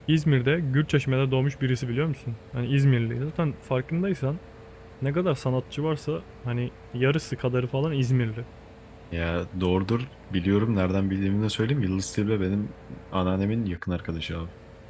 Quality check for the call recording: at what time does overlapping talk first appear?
none

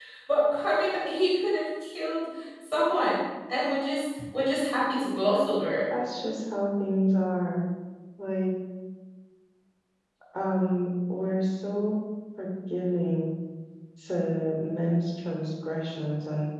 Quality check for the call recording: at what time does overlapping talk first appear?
none

